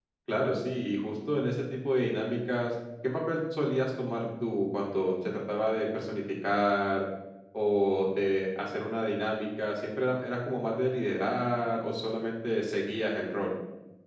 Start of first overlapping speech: none

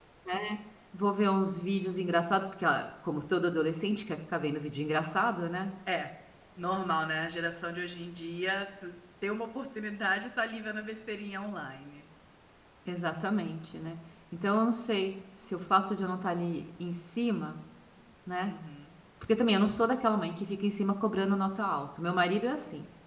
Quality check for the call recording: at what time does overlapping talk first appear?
none

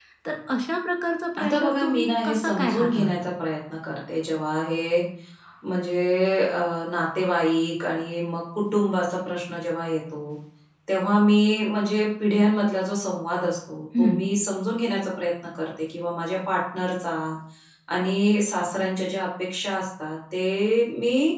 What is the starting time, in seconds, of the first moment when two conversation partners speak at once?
1 s

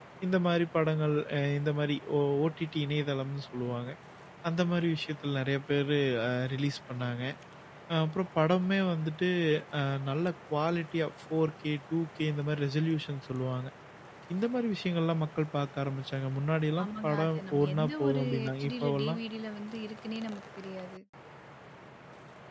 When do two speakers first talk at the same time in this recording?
17 s

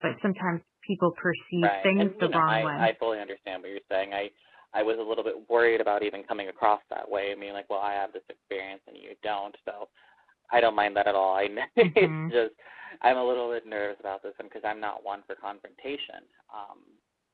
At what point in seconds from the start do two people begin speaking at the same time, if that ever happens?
2 s

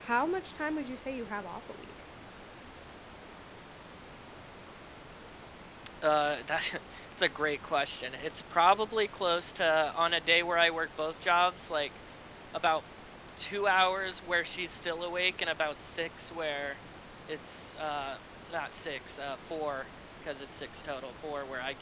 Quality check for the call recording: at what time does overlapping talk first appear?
none

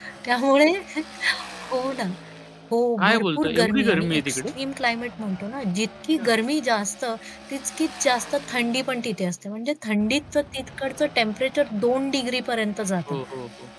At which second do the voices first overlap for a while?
3 s

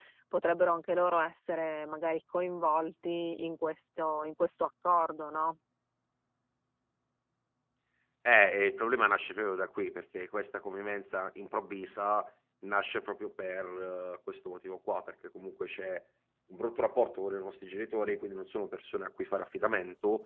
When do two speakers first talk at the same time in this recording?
none

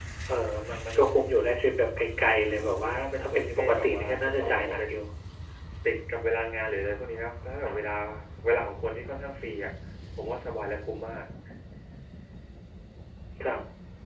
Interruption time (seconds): 3 s

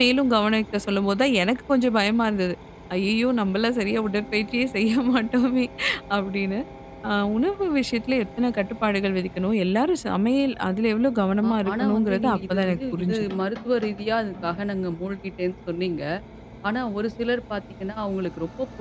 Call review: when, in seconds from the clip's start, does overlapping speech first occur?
11 s

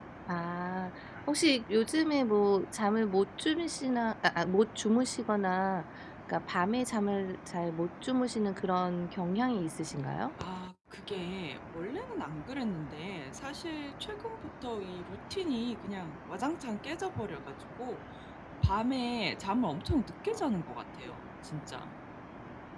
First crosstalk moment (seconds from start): none

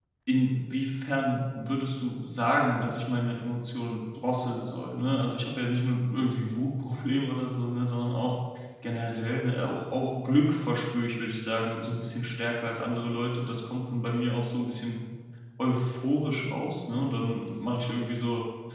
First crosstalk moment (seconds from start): none

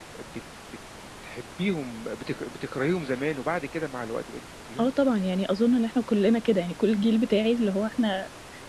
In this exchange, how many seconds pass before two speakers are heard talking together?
none

